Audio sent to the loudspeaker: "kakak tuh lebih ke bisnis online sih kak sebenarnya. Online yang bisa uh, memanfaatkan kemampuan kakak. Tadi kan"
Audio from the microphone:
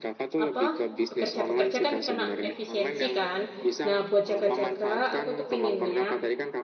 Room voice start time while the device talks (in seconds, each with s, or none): 0.4 s